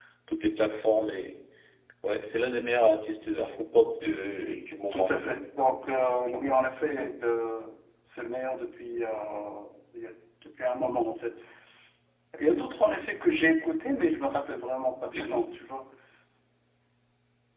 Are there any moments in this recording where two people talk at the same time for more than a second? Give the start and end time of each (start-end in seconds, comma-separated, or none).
none